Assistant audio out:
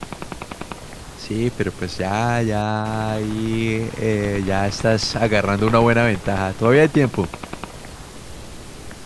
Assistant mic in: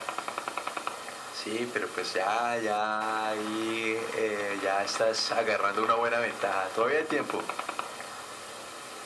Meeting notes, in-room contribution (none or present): none